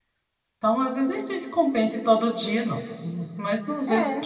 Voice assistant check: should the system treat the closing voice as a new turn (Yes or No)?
Yes